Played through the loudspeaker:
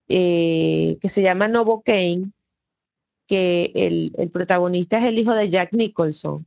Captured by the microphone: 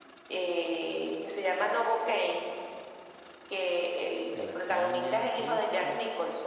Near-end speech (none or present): present